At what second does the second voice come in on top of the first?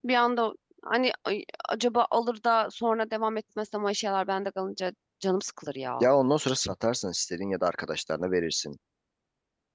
none

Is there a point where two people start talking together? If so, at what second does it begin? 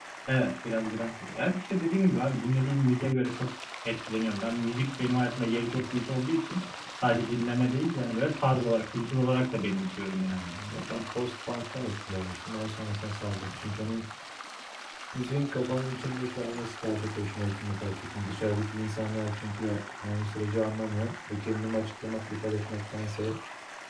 none

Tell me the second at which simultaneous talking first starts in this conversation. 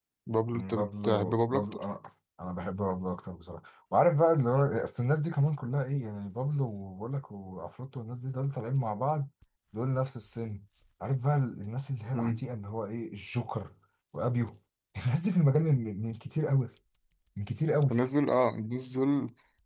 0.5 s

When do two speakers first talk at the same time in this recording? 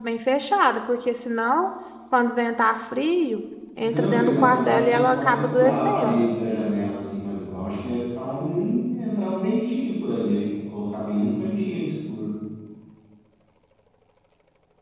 3.8 s

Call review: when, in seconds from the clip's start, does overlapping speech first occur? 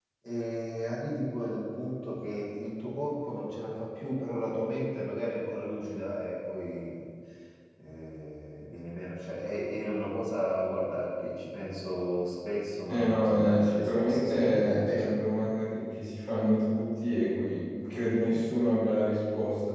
12.9 s

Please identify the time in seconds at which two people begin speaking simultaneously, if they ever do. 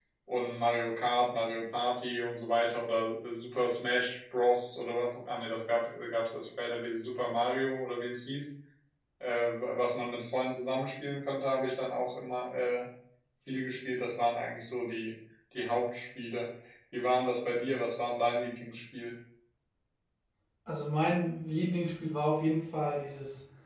none

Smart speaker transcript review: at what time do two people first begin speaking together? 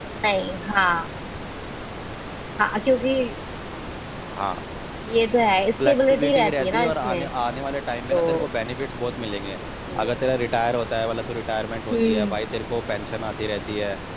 5.8 s

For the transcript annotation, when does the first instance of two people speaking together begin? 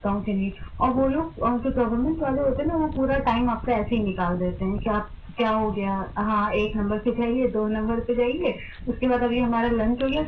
none

